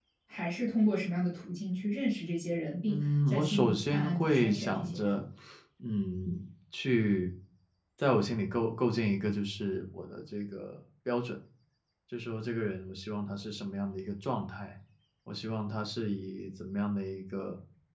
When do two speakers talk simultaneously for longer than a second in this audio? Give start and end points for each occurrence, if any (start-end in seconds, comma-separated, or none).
2.9-5.1